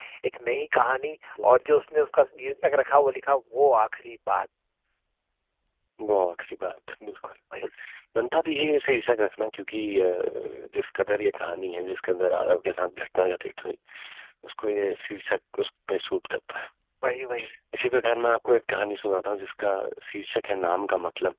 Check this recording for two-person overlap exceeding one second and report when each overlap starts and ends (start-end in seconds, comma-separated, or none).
none